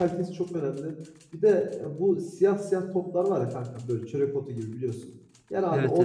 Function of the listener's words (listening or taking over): listening